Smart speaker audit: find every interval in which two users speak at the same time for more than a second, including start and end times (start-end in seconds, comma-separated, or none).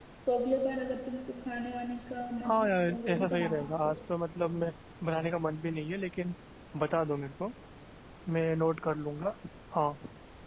2.5-3.9